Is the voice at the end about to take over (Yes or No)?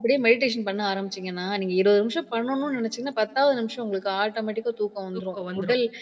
No